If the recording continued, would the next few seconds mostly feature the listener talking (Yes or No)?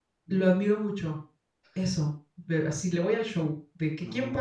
No